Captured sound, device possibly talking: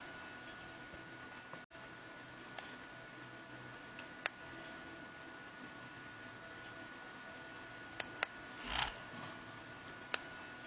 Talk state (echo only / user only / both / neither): neither